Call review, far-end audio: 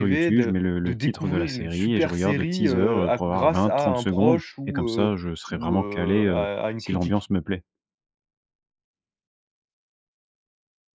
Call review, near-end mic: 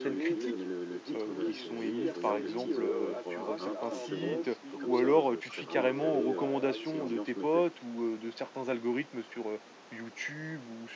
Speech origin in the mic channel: both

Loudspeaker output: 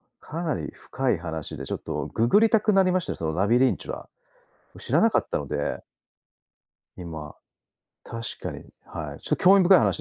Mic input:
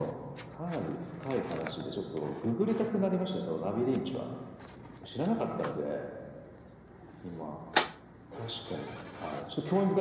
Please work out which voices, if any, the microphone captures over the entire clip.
echo only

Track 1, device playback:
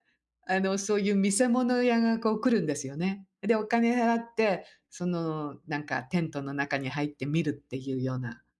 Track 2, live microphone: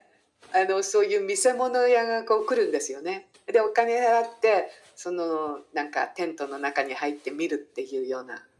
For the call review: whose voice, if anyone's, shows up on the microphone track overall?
echo only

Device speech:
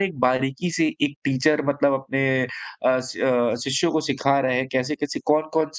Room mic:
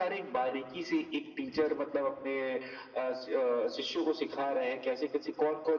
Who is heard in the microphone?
echo only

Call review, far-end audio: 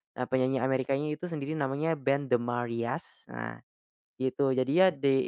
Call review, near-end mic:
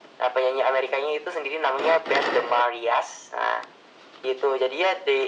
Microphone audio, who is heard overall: echo only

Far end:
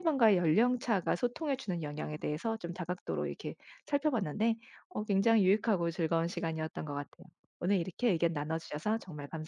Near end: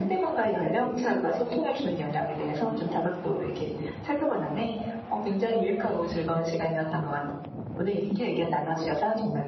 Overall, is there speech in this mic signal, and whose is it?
echo only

